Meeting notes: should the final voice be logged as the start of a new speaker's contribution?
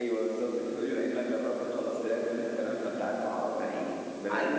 No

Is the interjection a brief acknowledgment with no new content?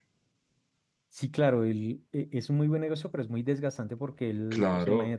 Yes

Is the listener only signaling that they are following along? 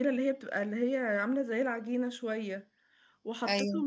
Yes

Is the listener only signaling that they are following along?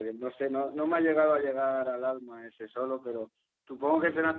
Yes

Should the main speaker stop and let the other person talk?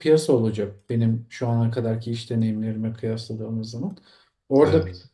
No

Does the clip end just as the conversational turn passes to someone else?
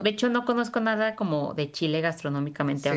Yes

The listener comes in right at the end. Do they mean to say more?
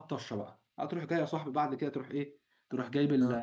No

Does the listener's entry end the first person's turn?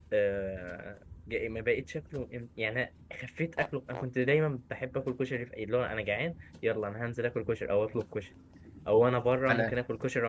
No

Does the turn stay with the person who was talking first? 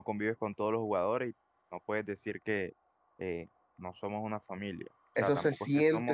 No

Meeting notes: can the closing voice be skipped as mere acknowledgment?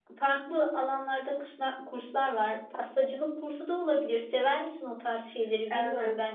No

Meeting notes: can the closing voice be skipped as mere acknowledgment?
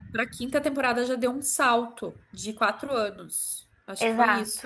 No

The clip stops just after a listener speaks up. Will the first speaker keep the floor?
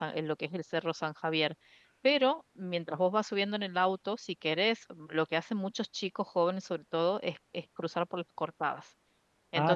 Yes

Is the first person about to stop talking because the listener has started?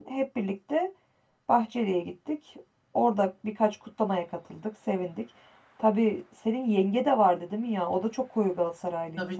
Yes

